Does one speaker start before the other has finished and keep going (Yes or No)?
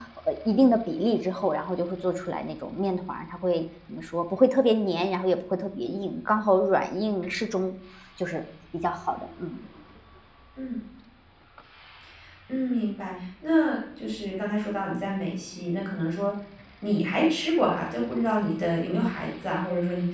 No